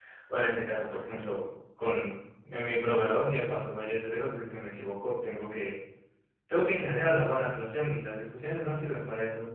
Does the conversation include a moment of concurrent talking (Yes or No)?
No